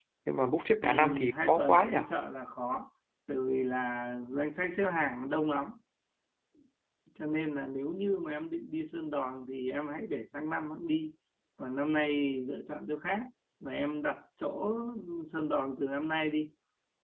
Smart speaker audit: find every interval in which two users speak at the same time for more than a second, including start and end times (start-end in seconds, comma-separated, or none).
0.8-2.0